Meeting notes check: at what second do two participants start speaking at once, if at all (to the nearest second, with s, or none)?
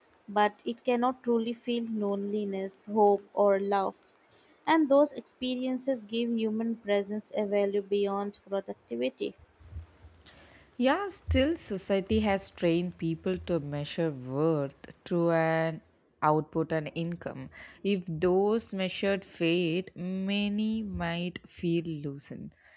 none